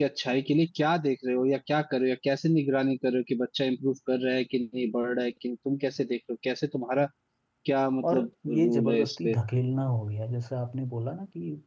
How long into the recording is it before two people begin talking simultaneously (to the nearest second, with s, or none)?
8 s